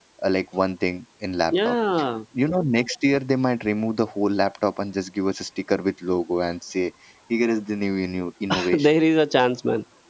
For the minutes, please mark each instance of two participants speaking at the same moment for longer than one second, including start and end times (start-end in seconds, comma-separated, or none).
none